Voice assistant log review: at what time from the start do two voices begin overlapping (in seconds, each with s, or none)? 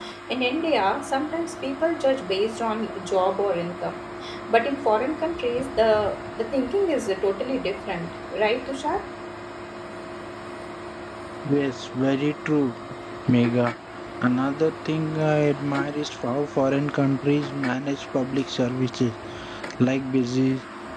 none